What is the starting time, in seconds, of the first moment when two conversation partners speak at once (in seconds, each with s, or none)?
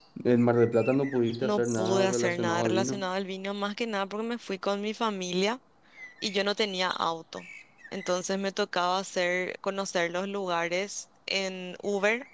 1.4 s